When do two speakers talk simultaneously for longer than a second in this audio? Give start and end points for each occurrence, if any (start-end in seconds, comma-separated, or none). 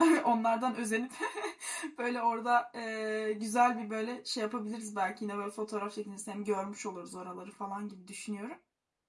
none